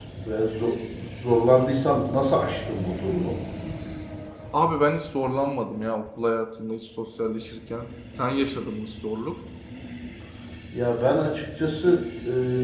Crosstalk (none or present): none